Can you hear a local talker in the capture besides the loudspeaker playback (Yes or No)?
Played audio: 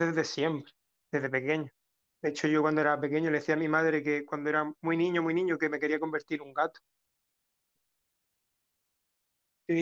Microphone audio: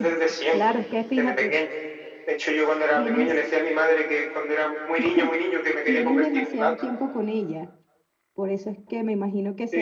Yes